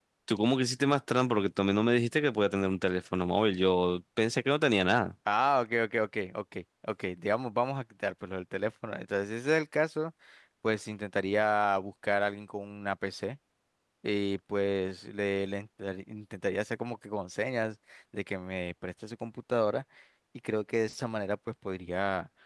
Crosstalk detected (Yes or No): No